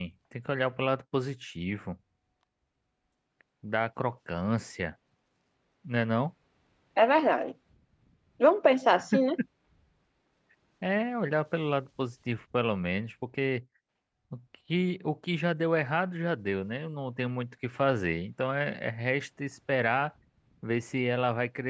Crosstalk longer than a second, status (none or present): none